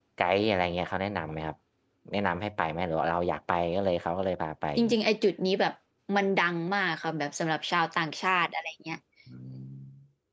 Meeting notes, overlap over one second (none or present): none